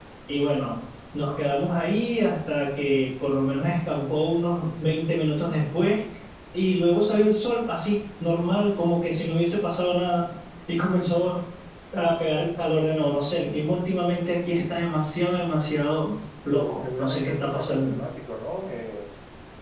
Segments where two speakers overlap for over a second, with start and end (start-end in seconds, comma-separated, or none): 16.6-17.9